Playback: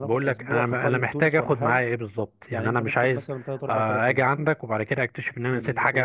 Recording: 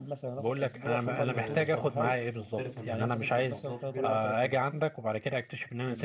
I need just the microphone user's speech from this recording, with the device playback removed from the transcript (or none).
تشوف آه، ثقافات مختلفه من نفس المحافظات وكده